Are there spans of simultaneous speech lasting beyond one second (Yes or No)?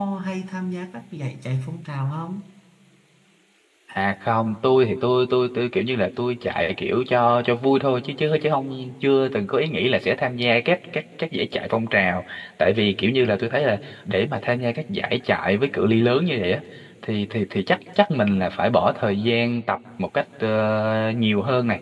No